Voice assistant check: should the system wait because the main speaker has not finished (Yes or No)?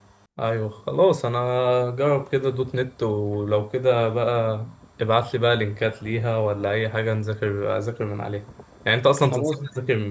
Yes